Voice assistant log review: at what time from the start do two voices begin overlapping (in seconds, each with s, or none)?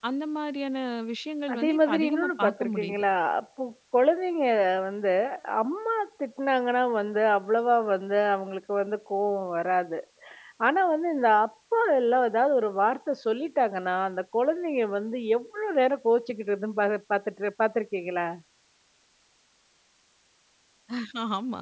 1.5 s